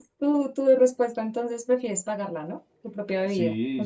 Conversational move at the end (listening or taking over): taking over